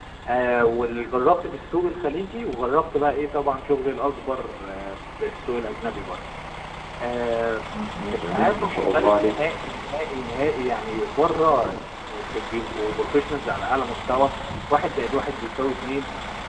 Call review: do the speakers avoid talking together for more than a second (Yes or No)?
No